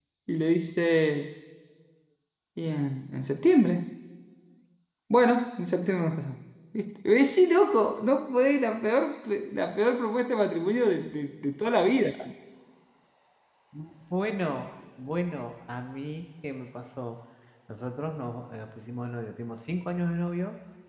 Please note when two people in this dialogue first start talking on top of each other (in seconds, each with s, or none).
none